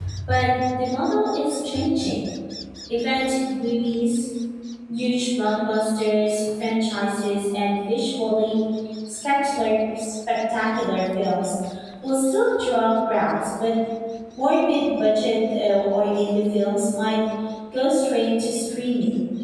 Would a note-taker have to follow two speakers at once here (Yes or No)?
No